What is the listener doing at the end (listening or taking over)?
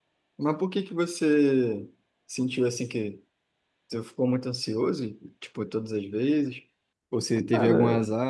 listening